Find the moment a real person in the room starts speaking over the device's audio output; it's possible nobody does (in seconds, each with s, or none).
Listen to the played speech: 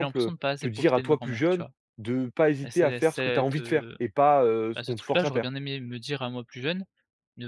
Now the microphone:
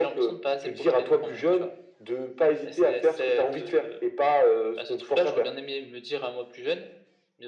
none